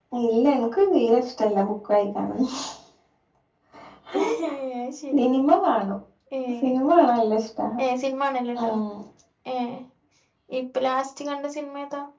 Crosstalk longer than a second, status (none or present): none